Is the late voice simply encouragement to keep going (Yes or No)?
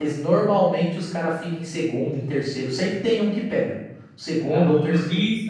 No